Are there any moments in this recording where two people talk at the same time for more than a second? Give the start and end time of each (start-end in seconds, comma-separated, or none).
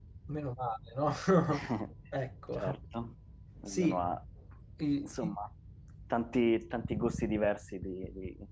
none